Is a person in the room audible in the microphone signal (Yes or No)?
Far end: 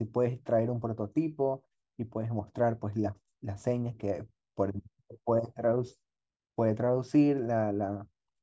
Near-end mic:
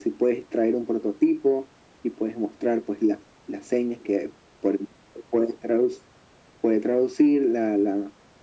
No